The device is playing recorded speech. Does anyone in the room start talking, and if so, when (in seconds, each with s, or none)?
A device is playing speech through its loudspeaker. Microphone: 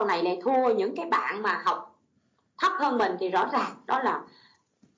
none